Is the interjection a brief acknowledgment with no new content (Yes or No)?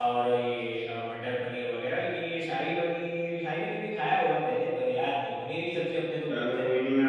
No